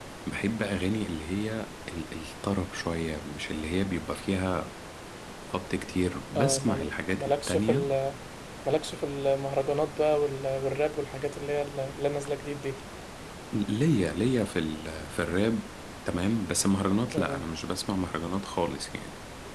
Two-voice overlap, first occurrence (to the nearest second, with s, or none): 6 s